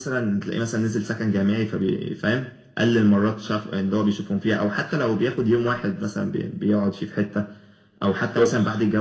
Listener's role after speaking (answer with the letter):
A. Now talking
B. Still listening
B